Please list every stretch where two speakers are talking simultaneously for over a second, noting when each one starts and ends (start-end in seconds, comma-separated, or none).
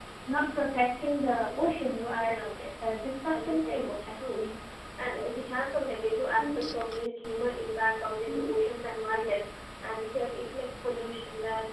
3.2-4.5